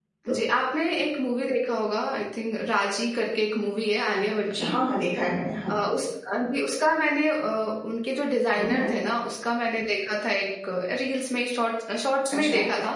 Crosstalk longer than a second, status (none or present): none